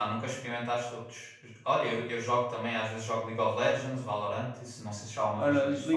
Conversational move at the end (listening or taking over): taking over